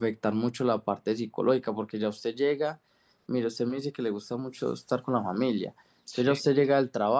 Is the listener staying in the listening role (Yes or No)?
Yes